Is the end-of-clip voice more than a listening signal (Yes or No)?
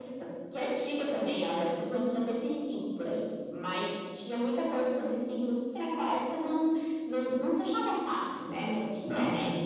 Yes